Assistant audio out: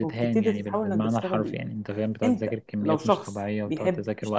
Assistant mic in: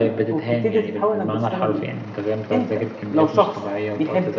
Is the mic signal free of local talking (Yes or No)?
Yes